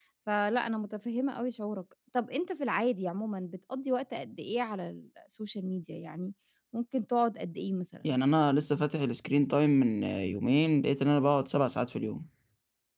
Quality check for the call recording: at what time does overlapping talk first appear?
none

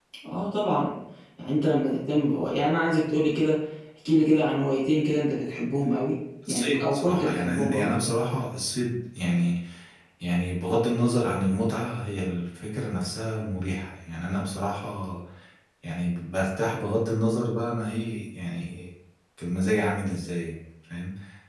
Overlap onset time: 6.5 s

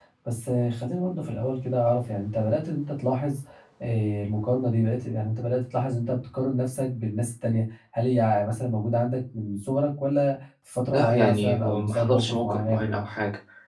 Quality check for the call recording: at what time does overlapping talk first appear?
10.9 s

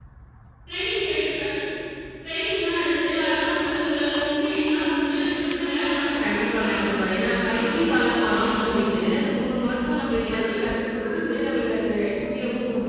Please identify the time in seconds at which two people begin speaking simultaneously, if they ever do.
6.2 s

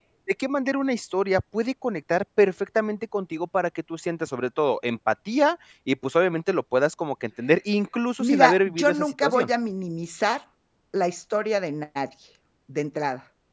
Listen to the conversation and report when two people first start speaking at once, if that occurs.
8.2 s

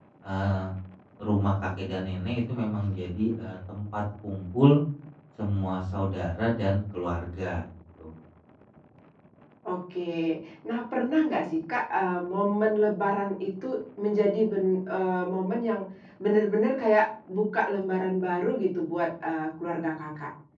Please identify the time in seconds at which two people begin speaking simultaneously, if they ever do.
none

